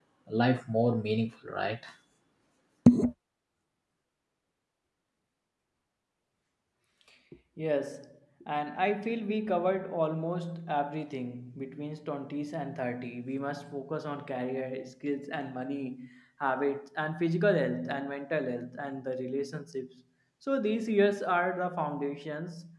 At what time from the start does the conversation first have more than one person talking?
none

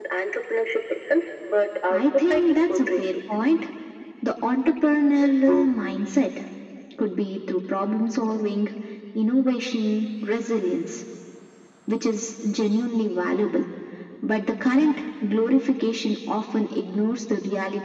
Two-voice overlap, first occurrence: 1.9 s

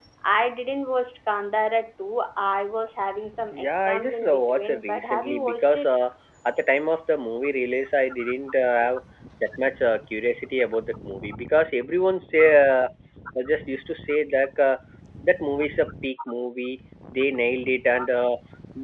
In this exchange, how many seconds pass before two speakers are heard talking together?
3.5 s

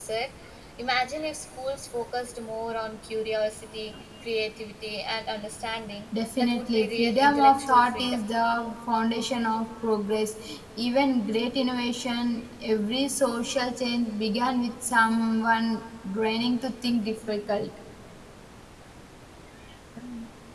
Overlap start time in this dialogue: 6.4 s

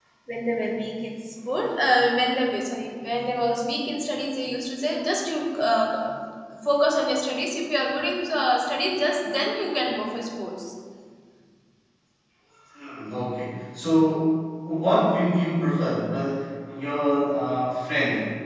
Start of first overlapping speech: none

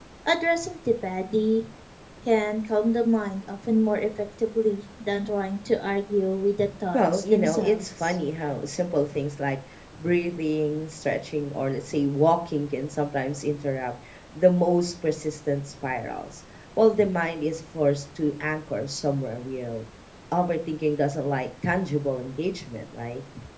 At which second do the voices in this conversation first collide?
6.9 s

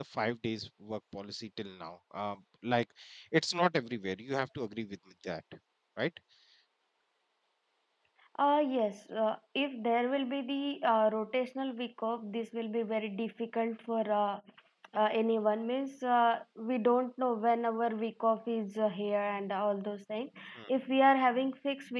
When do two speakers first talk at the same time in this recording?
none

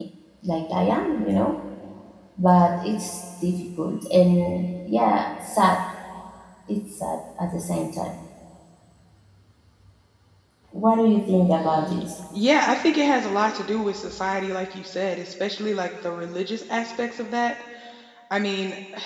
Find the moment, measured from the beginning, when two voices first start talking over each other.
none

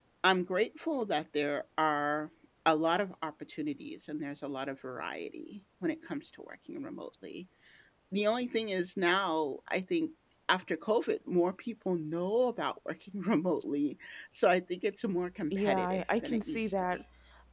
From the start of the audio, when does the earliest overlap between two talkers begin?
15.5 s

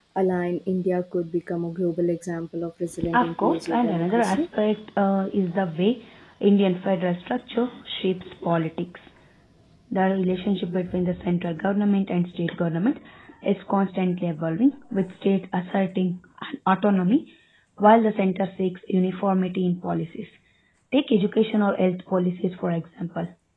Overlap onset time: 3.1 s

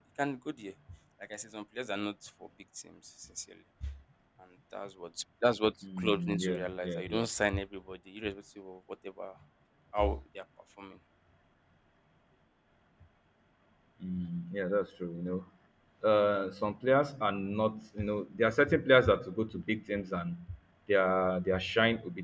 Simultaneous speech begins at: 5.8 s

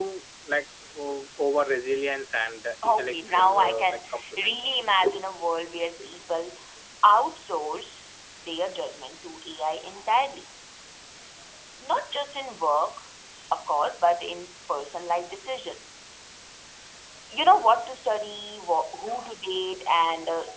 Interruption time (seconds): 2.8 s

